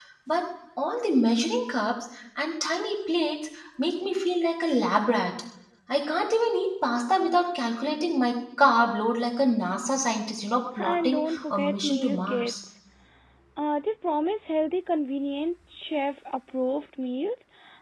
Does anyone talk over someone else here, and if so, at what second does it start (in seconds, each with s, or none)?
10.8 s